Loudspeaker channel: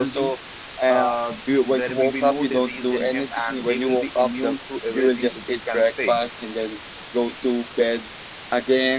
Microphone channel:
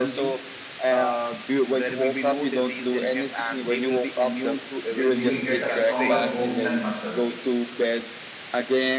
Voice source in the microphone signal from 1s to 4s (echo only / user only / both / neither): echo only